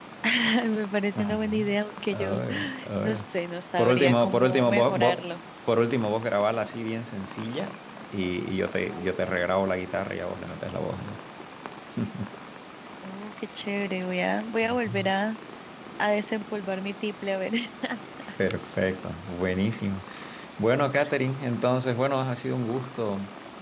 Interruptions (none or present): present